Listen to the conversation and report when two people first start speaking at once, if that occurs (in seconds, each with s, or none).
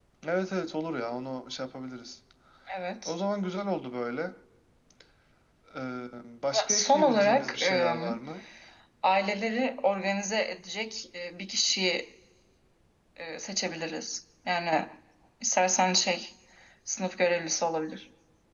6.6 s